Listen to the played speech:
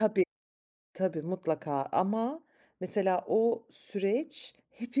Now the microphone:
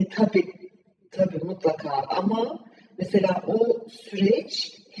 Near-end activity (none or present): none